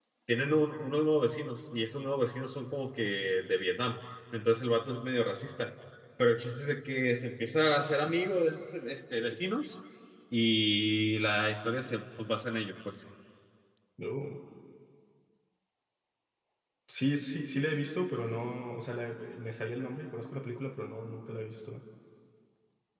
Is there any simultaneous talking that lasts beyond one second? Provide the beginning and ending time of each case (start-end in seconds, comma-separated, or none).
none